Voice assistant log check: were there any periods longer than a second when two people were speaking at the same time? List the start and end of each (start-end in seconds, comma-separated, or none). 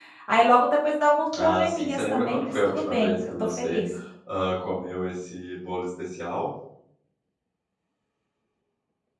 1.4-3.8